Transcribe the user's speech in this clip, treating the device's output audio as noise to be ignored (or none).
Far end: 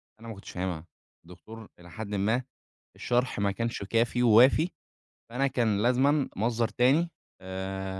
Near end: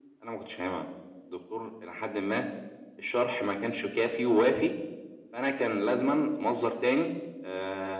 none